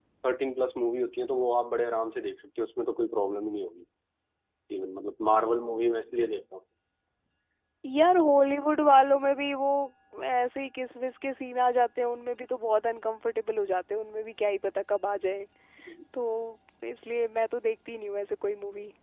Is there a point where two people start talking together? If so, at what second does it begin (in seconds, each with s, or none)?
none